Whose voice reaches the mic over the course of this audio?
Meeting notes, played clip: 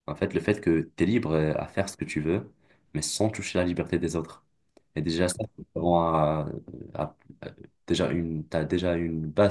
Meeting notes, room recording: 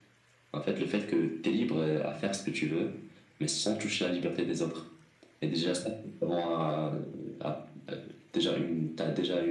echo only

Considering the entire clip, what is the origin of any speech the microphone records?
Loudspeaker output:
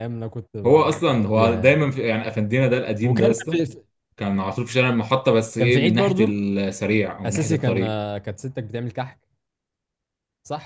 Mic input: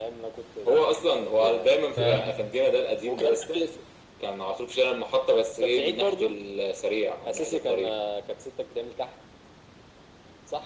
both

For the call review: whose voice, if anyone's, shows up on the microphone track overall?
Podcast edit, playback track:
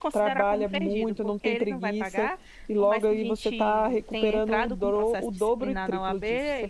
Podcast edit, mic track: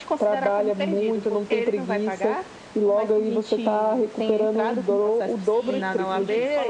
both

